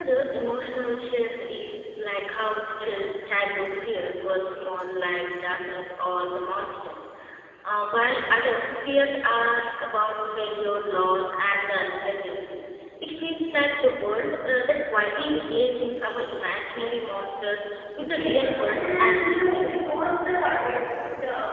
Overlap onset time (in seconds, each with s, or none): 18.0 s